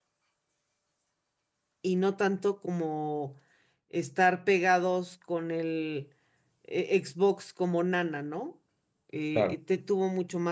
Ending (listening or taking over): listening